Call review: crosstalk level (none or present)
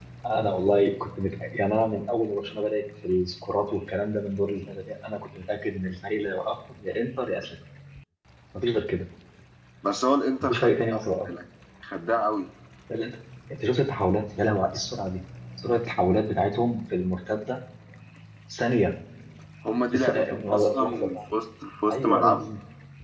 present